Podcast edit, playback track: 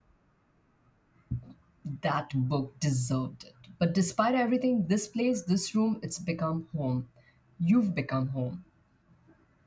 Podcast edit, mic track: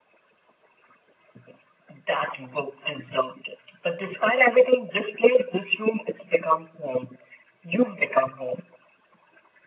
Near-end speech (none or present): none